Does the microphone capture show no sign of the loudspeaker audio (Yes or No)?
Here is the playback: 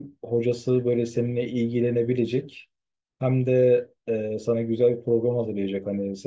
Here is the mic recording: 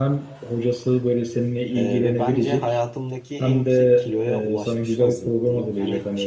No